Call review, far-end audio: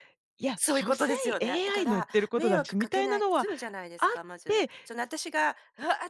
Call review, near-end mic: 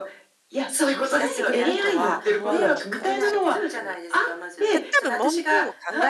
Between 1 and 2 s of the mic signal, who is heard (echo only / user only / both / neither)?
both